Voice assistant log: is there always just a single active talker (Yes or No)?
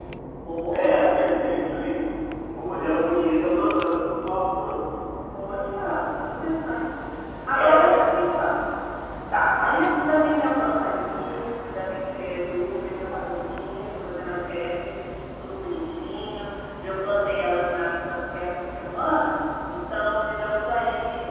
No